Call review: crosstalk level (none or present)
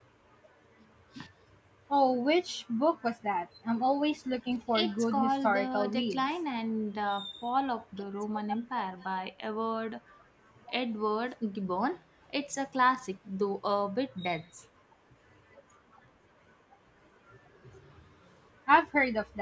present